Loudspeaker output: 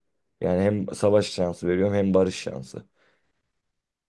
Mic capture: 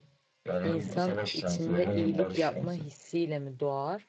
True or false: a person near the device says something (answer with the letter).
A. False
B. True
B